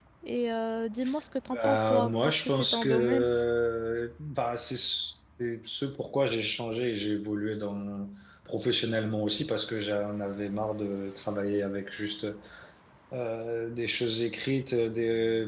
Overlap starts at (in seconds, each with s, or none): 1.5 s